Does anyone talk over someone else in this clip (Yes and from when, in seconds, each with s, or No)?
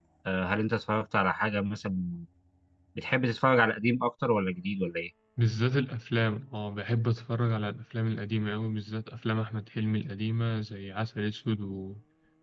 No